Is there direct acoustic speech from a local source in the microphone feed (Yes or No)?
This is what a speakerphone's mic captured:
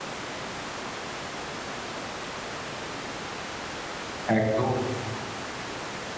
Yes